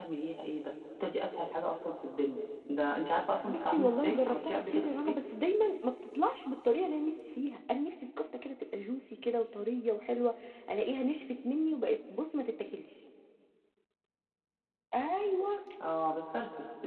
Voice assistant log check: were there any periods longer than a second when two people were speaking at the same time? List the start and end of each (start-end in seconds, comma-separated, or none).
3.4-5.2